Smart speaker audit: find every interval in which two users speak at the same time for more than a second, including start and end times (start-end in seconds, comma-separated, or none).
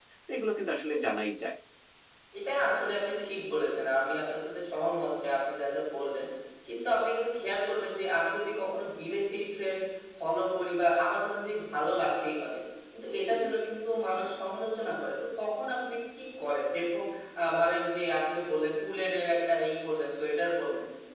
none